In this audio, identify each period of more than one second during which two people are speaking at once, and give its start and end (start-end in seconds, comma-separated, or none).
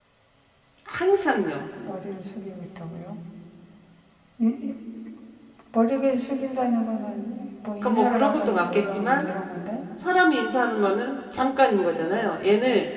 7.8-9.3